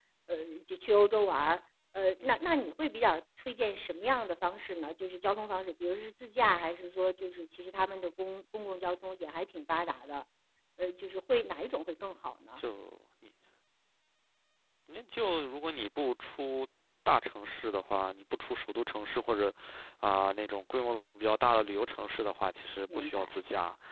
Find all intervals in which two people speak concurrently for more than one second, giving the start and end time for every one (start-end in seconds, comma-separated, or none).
none